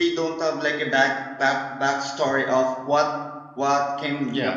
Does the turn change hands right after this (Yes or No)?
No